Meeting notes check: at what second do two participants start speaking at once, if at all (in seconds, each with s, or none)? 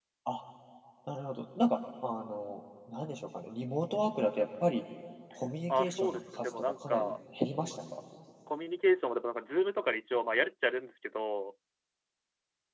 5.8 s